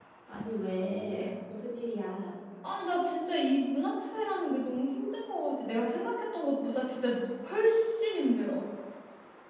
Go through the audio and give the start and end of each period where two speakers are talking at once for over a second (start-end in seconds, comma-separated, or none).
none